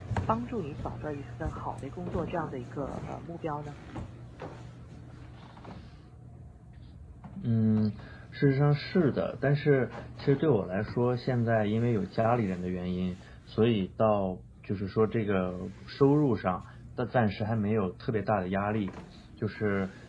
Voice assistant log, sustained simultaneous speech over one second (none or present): none